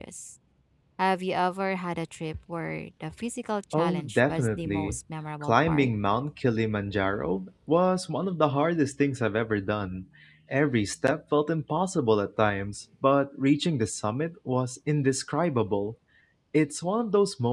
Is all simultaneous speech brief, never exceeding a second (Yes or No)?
No